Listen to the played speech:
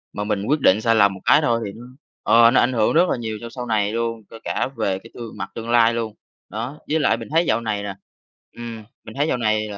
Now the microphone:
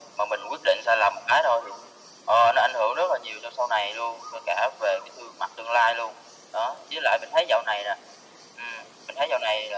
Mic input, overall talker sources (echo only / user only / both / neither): echo only